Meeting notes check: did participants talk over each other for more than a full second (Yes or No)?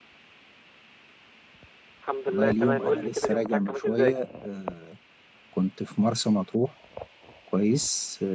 Yes